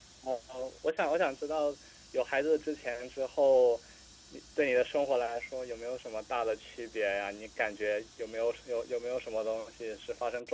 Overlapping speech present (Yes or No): No